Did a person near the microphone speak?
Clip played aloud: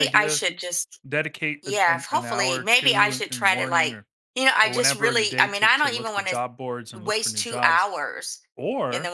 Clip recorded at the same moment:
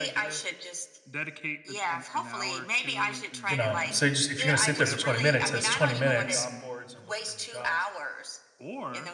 Yes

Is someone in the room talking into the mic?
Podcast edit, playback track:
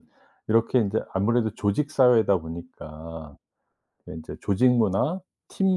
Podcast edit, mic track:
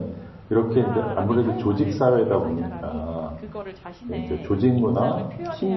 Yes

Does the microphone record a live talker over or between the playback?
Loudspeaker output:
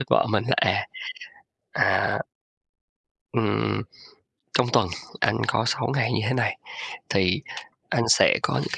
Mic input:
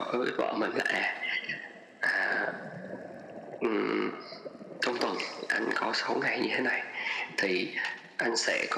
No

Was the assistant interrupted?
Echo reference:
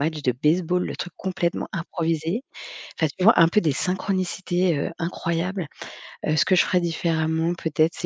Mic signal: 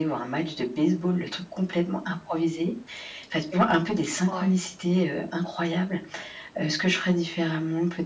Yes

